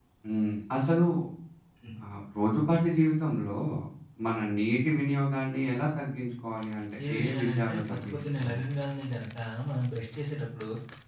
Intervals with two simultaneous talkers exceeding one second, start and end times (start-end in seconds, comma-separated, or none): 7.1-8.6